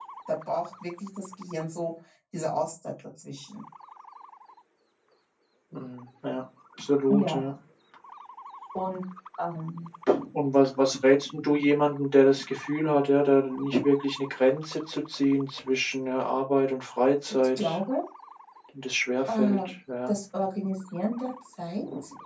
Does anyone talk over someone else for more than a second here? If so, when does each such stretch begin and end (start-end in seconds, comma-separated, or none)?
none